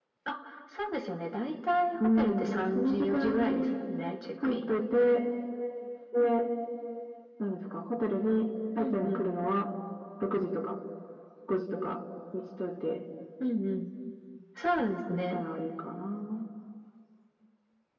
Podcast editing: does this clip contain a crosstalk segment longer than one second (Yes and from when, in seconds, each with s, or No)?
Yes, from 2.2 s